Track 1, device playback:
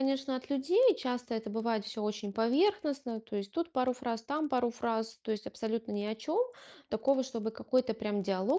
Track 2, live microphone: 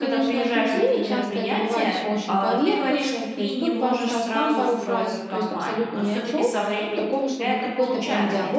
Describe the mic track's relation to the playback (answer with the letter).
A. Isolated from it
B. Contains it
B